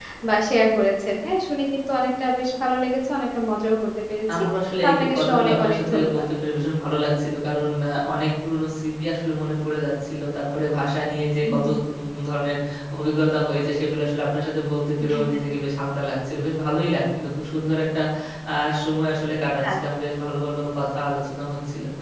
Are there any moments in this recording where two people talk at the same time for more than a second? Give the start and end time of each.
4.8-6.2

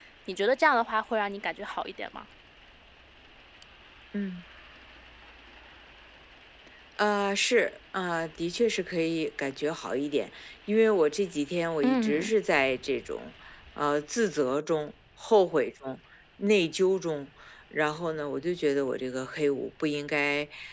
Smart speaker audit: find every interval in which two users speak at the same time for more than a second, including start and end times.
none

